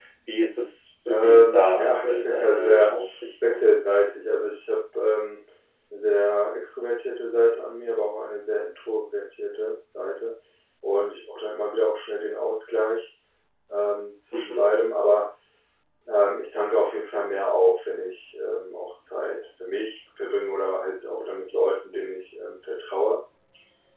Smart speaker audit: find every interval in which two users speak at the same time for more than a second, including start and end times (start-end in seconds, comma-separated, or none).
1.1-3.0